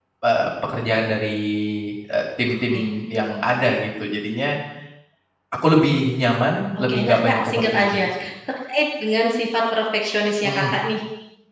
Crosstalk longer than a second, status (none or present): present